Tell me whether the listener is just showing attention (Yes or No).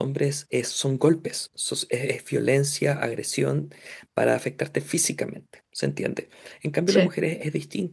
Yes